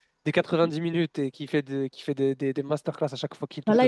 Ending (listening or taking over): taking over